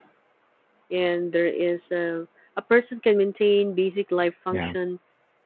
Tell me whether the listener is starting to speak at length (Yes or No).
No